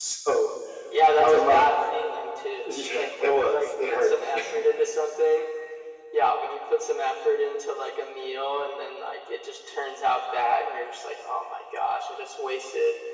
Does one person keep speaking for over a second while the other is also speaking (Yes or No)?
Yes